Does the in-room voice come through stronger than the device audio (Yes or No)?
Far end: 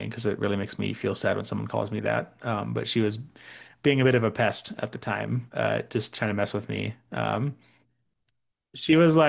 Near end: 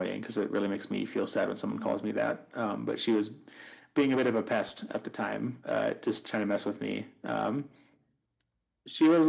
No